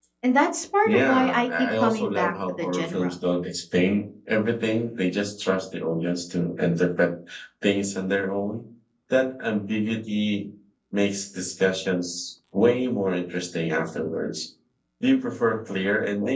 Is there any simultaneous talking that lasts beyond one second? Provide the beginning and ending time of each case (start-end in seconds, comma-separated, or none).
0.8-3.1